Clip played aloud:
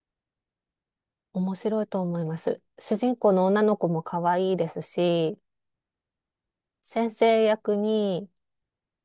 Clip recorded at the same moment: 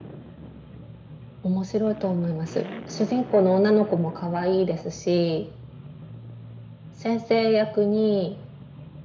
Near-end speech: none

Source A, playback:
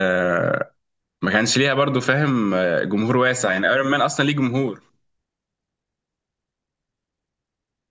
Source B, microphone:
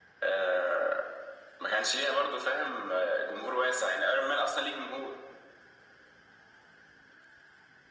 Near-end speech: none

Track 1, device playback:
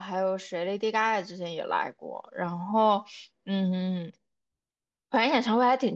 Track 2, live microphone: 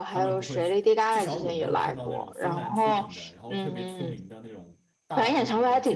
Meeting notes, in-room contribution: present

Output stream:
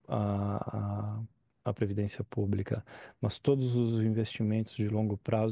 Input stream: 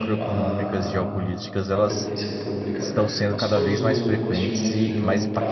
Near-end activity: present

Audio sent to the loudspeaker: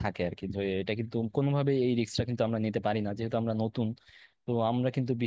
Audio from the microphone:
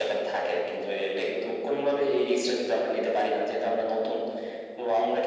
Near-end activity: none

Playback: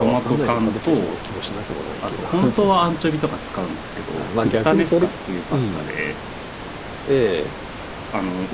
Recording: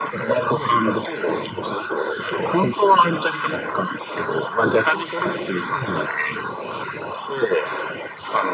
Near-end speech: none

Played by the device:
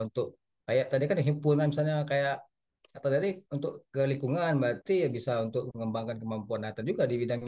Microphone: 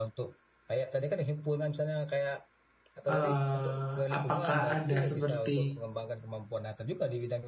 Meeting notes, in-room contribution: present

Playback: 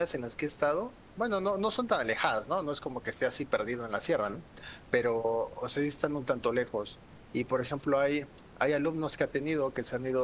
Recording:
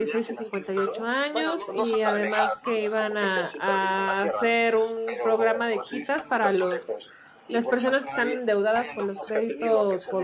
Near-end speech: present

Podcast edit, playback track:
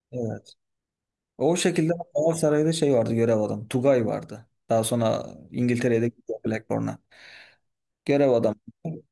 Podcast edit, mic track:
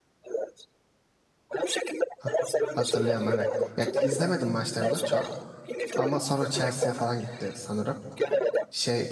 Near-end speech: present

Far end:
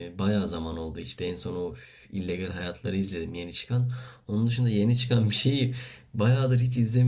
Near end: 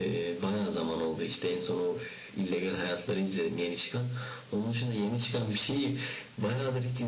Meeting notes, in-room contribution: none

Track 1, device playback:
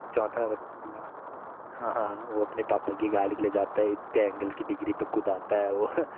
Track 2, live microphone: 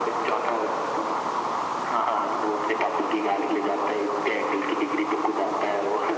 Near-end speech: none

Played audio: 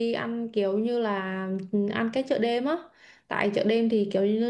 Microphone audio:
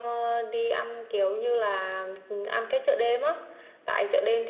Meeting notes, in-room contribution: none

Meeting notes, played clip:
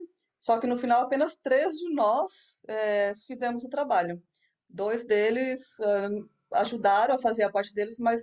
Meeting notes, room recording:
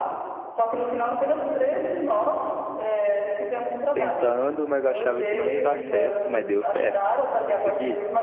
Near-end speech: present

